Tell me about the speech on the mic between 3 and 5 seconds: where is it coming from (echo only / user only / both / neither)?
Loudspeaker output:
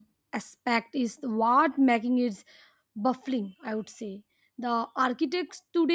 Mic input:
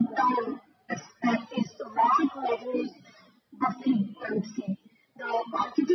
echo only